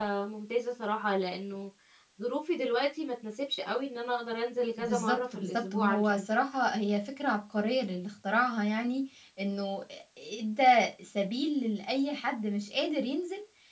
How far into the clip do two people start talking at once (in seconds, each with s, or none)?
4.8 s